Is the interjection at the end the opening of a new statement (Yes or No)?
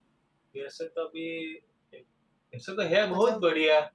No